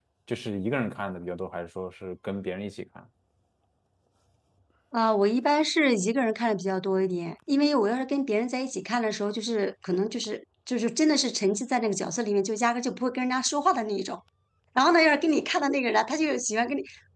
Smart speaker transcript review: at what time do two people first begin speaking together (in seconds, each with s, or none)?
none